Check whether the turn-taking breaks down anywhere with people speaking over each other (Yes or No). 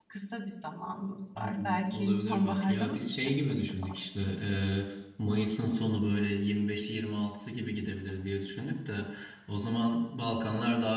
Yes